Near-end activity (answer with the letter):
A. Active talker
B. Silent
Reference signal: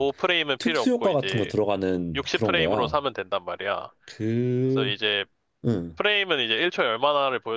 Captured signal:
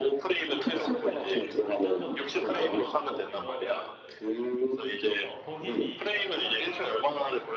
A